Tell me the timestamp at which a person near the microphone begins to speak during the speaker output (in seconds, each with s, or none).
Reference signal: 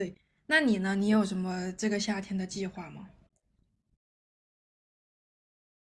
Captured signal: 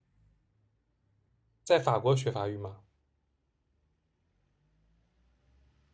1.6 s